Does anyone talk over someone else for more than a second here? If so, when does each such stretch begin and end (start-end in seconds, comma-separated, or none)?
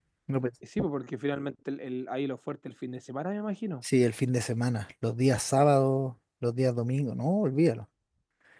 none